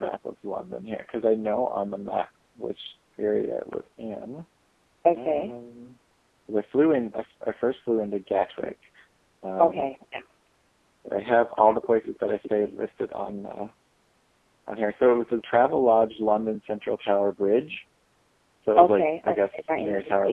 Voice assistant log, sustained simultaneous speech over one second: present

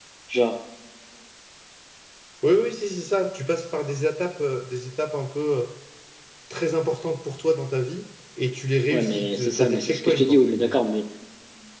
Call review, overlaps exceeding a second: present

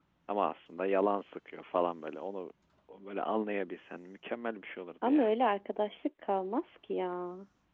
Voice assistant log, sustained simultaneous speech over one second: none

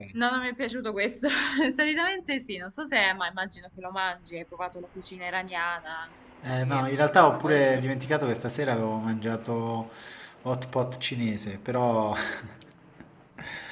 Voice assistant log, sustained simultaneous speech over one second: none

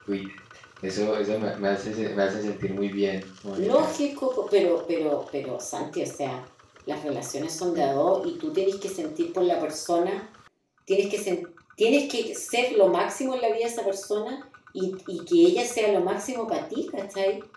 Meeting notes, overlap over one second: none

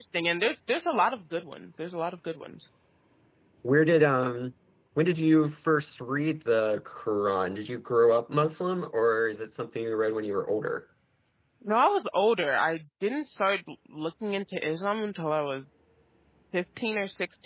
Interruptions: none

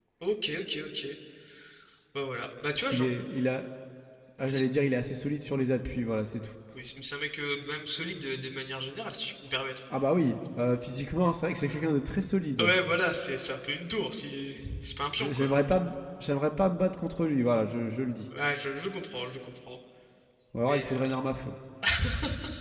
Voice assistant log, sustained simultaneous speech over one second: none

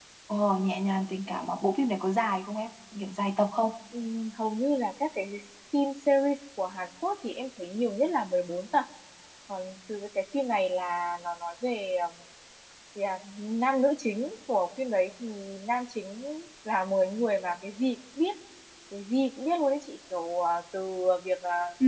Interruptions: none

